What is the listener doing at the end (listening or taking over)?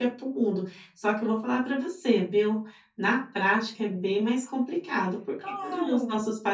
listening